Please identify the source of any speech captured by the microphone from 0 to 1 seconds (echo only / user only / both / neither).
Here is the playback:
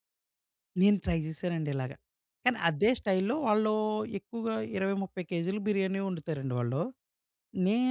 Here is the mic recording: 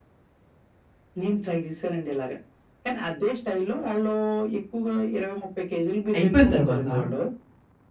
neither